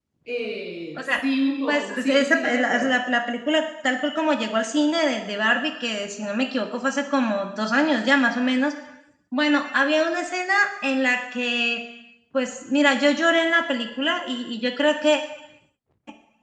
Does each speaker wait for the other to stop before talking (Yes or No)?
No